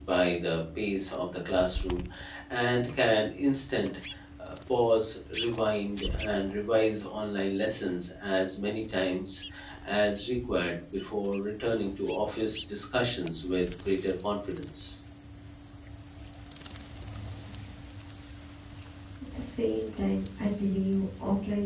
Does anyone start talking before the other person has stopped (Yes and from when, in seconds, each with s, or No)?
No